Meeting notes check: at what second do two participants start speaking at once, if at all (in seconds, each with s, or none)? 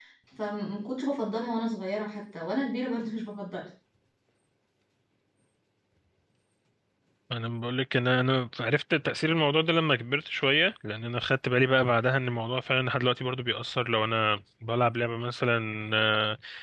none